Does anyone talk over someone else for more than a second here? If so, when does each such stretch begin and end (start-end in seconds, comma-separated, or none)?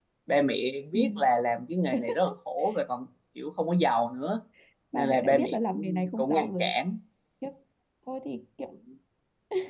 4.9-6.7